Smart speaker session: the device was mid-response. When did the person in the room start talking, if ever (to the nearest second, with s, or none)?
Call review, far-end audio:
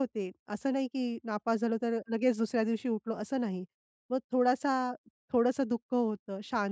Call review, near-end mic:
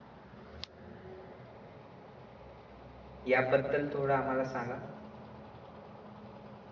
3 s